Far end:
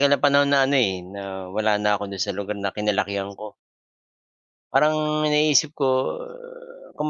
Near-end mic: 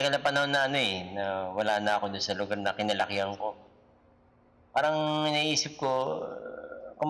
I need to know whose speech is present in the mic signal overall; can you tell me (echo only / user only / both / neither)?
echo only